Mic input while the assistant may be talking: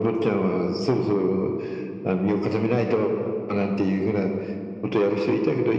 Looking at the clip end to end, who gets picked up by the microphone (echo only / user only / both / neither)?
echo only